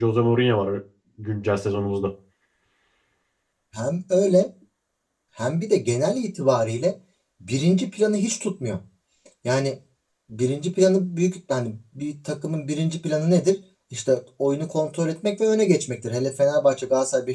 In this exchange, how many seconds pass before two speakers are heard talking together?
none

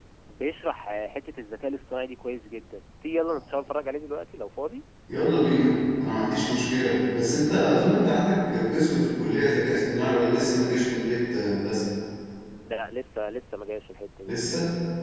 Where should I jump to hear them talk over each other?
none

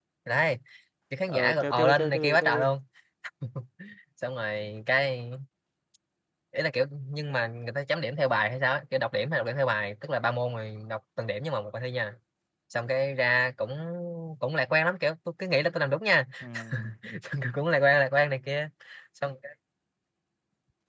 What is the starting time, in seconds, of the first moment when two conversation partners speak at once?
1.3 s

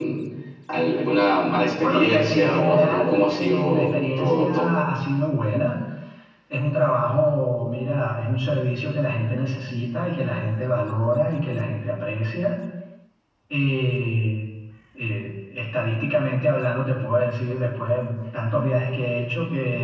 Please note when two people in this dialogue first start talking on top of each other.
1.8 s

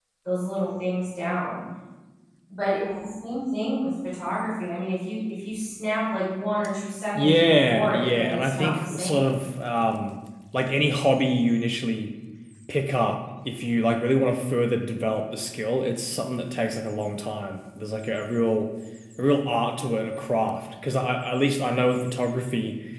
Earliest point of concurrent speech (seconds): 7.1 s

